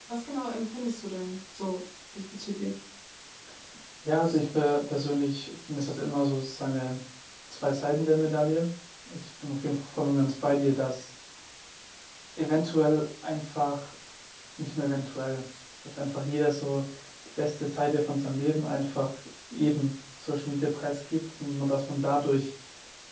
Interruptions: none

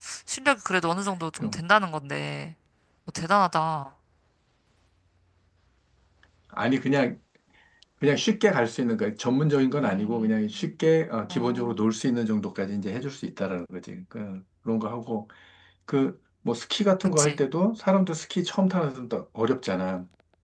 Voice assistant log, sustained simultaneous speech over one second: none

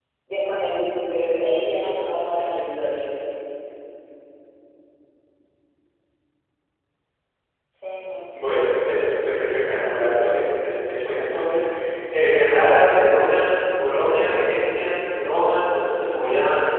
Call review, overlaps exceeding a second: none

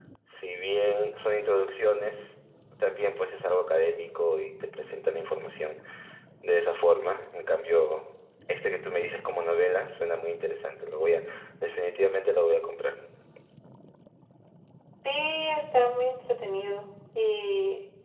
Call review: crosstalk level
none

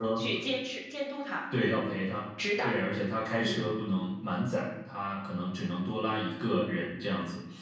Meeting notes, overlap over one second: none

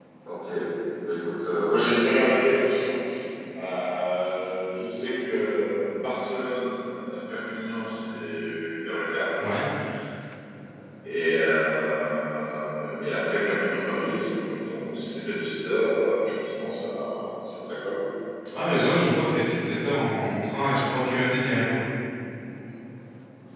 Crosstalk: none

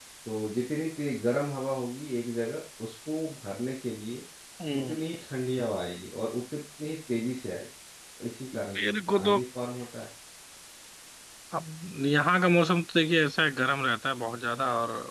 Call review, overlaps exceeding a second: none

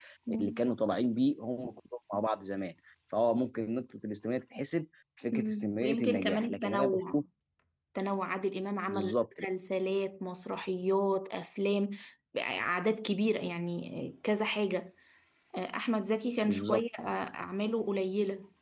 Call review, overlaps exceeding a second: present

